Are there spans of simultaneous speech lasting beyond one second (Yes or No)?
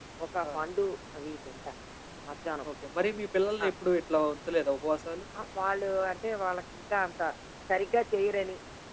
No